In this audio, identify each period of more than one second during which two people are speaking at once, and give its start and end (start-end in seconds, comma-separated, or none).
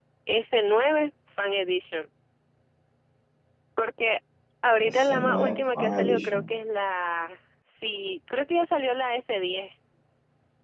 4.8-6.4